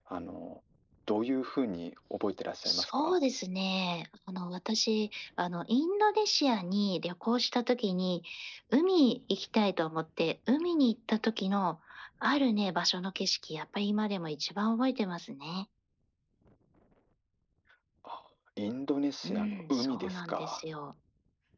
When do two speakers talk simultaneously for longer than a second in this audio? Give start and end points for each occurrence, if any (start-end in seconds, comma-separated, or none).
19.2-20.6